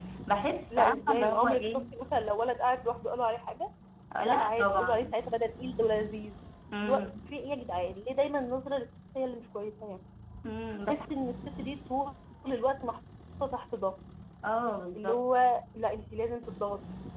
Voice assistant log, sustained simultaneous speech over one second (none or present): present